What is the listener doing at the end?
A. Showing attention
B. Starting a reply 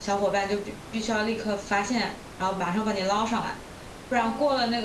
A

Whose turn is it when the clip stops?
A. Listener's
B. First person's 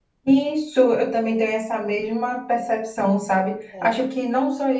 B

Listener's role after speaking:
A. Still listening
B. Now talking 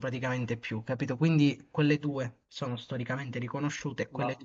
A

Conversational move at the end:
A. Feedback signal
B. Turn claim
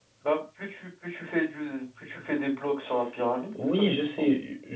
B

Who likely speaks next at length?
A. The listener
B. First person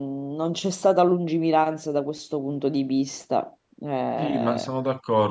A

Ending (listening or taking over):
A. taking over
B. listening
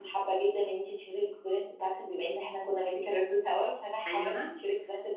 B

